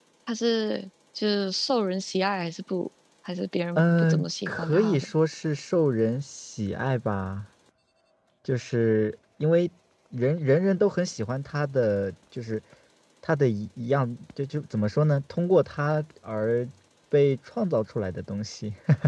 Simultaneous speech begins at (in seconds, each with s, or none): 3.8 s